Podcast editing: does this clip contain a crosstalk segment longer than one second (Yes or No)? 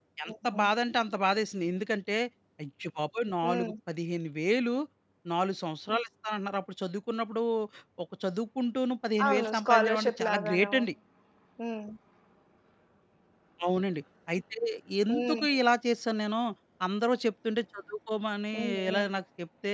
Yes